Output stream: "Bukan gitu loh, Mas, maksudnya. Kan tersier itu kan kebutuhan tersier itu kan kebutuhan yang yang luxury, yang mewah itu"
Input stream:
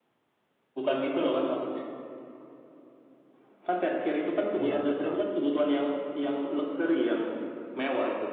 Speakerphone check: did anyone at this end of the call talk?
Yes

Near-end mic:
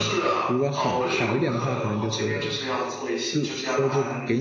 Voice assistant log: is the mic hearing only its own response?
No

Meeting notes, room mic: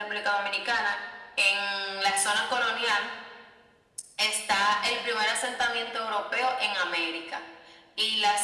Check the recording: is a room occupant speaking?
No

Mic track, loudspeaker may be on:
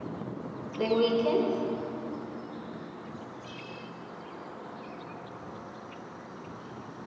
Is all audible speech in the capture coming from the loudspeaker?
No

